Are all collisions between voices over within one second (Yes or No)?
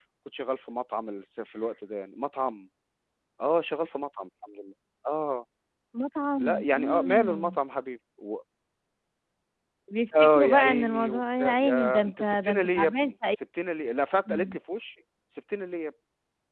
No